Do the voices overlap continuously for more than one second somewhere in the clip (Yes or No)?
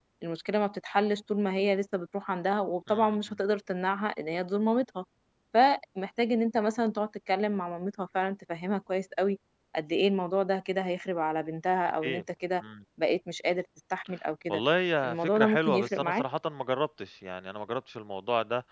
Yes